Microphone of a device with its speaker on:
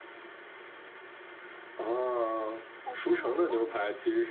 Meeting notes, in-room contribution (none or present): present